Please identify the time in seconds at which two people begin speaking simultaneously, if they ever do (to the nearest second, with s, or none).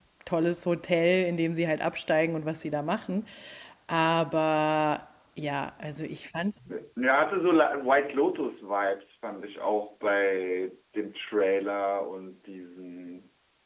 none